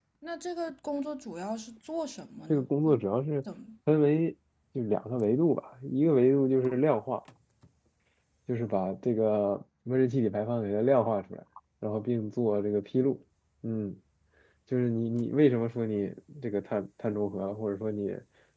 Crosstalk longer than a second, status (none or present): none